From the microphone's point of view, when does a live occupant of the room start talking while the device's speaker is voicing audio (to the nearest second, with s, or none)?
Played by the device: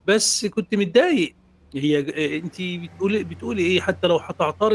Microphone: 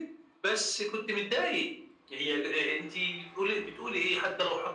none